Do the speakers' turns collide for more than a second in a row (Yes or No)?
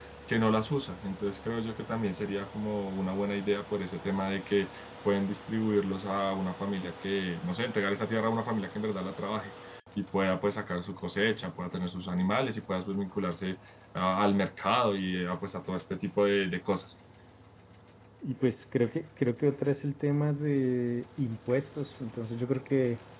No